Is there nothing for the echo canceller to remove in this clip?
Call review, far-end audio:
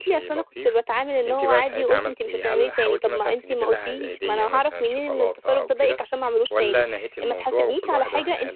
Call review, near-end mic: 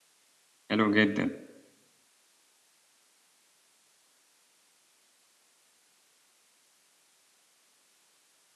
Yes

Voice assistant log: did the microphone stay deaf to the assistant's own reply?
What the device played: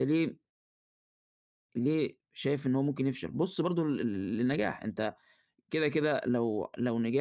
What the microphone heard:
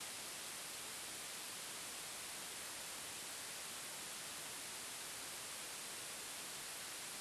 Yes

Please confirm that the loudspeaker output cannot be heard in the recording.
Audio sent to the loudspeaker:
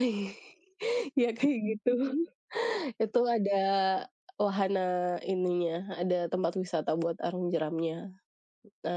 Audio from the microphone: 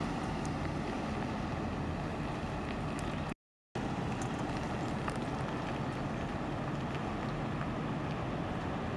Yes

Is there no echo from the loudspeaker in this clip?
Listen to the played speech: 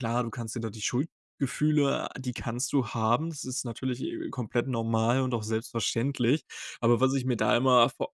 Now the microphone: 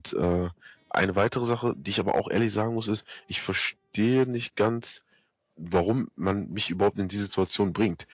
Yes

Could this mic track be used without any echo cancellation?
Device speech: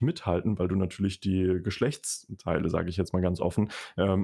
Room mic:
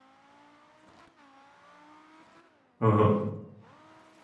Yes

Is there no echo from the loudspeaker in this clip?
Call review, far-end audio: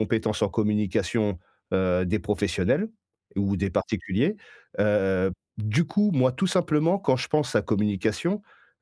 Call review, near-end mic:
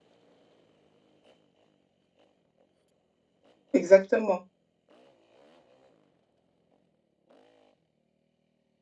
Yes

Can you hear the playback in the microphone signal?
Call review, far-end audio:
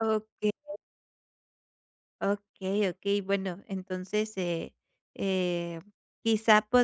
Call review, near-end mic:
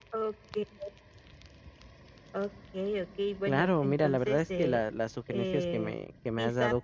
Yes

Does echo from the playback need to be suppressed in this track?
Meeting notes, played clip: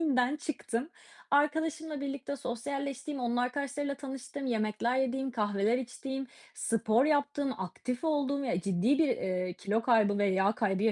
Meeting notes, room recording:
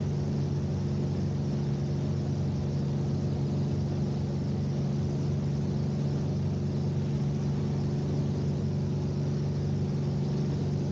No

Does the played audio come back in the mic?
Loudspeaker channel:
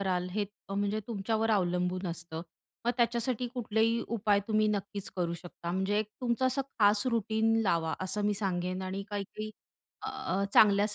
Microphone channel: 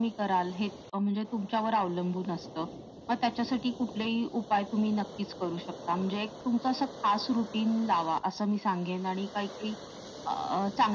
Yes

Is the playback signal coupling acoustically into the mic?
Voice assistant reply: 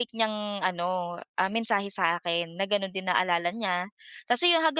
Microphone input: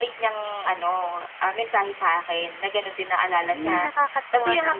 Yes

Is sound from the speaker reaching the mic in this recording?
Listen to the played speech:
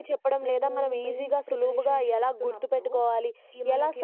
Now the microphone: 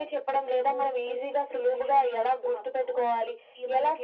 Yes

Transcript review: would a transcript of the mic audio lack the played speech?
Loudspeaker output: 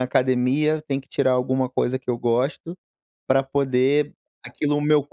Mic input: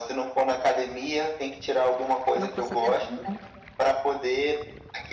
No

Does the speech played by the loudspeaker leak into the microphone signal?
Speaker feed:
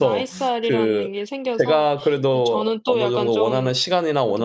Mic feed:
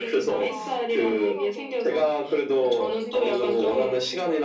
Yes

